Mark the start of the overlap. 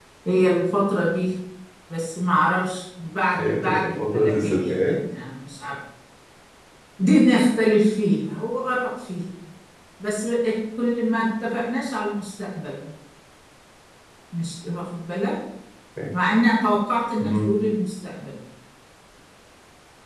3.3 s

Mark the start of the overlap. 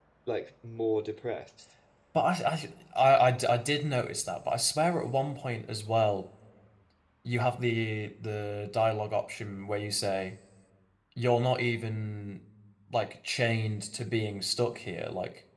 none

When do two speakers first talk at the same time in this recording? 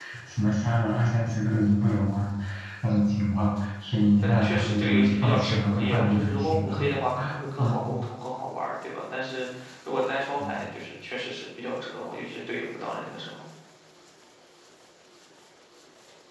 4.2 s

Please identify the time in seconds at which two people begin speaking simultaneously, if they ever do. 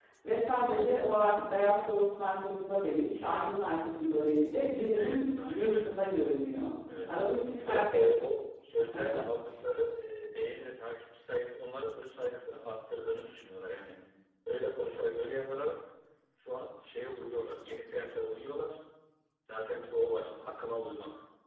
4.6 s

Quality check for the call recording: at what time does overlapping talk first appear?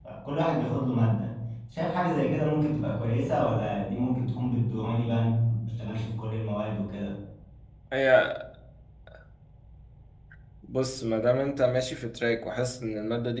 none

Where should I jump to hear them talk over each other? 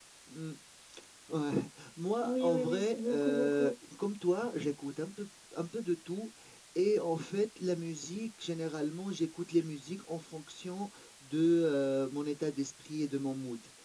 2.2 s

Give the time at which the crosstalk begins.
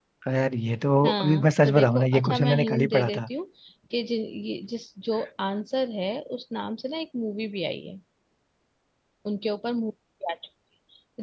1.1 s

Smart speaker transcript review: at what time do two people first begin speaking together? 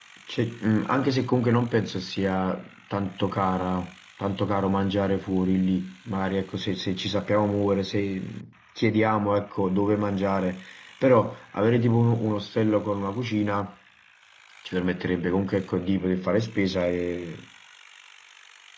none

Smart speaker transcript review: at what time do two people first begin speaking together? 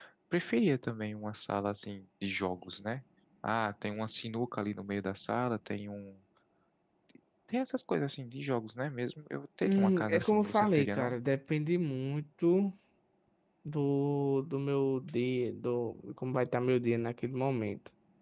9.6 s

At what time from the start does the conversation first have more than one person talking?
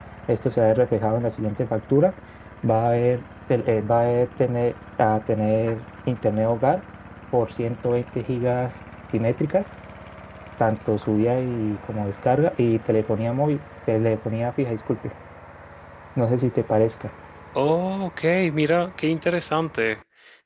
none

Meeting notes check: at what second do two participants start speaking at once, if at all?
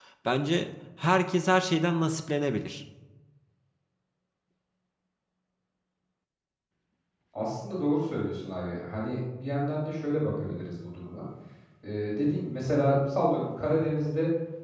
none

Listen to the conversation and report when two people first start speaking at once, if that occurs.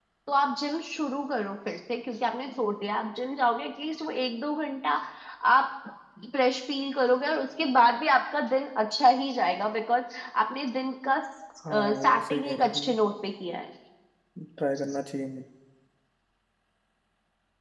11.6 s

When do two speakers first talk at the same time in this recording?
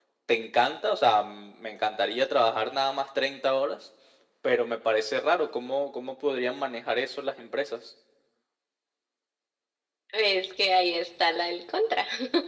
none

